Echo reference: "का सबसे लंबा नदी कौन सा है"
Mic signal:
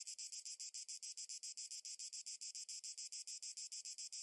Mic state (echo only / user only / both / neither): neither